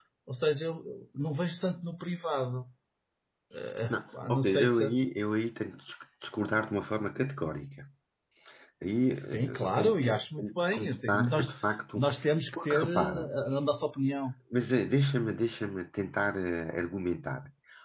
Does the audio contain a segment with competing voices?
Yes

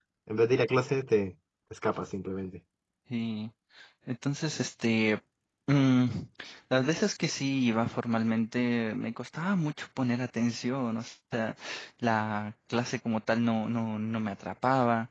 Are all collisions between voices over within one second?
Yes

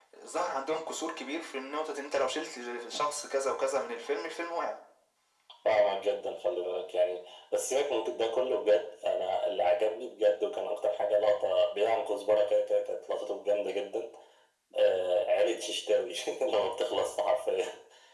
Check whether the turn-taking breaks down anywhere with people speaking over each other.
No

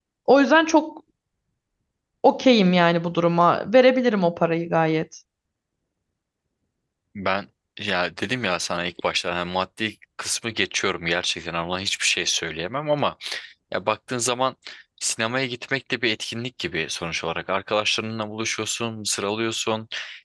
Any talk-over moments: No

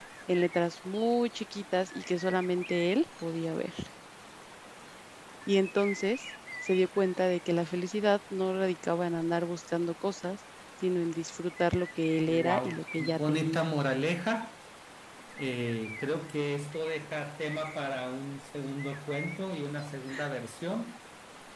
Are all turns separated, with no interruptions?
No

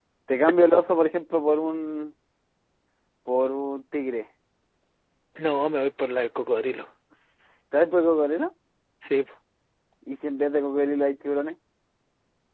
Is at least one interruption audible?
No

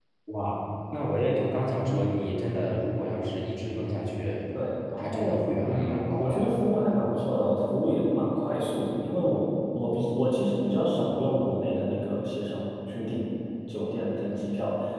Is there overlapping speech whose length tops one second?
Yes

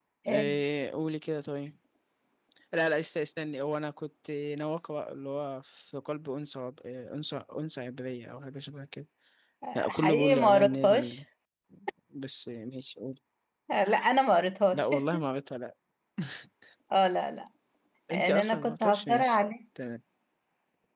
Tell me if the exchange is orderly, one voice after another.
No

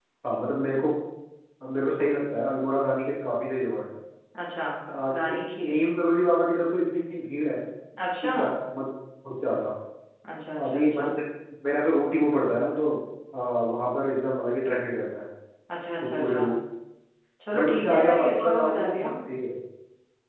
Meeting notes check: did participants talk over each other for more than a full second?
Yes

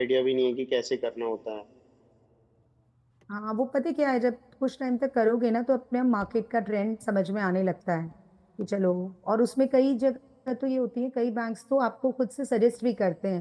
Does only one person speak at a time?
Yes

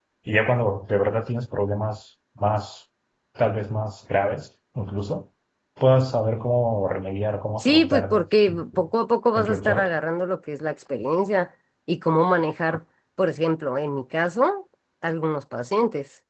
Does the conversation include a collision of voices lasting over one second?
Yes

